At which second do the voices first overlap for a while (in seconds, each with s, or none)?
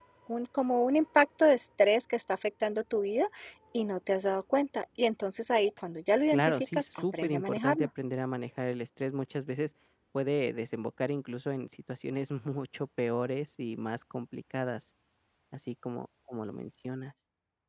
6.3 s